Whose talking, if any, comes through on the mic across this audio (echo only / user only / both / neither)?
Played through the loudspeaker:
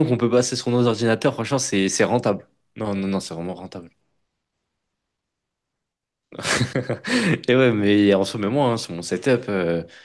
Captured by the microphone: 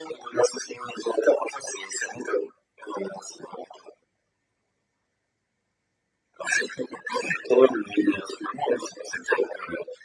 echo only